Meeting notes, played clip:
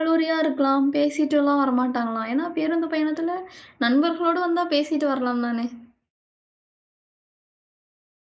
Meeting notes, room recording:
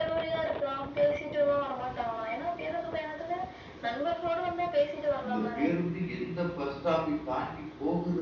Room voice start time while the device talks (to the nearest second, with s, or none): 5 s